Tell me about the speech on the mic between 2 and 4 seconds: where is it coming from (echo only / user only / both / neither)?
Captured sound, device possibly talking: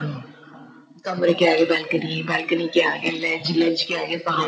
echo only